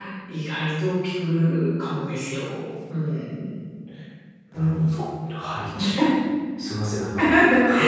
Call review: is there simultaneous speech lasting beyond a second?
No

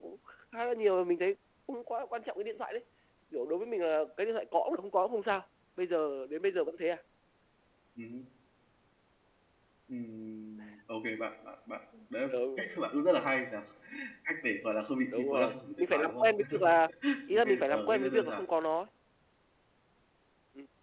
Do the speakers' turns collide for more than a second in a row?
Yes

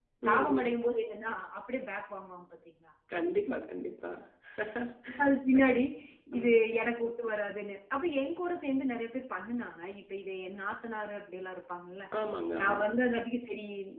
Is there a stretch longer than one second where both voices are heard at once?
No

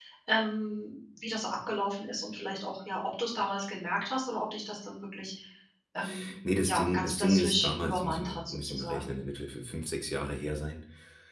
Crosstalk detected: Yes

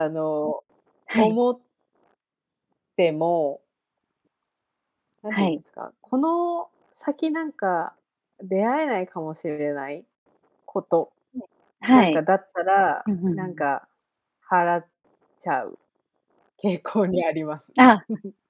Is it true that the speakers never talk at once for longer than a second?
Yes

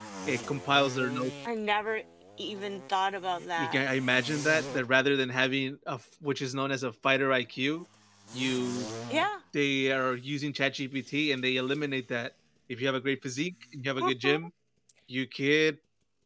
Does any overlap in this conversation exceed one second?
No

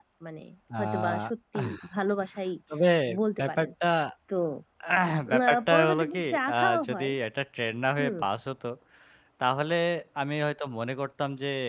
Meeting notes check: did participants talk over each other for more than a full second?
Yes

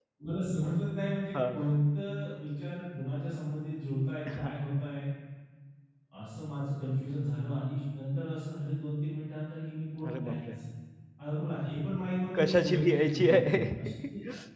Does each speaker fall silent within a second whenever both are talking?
No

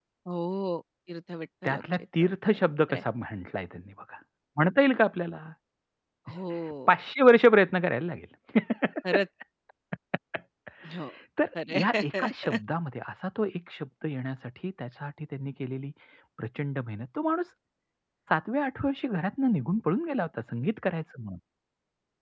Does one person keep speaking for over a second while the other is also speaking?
Yes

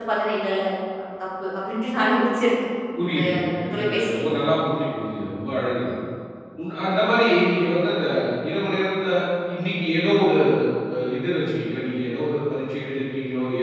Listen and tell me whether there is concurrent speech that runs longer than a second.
No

